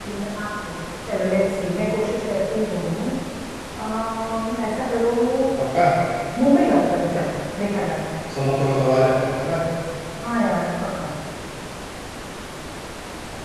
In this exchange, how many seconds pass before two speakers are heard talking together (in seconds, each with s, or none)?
none